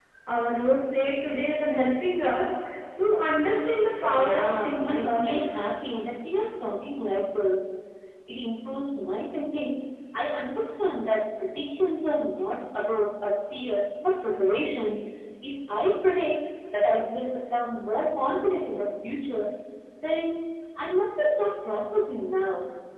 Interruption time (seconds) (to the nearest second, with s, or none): 4 s